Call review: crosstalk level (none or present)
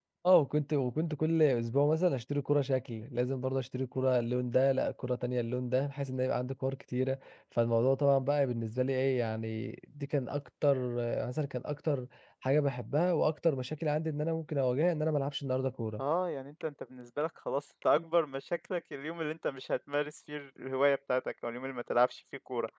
none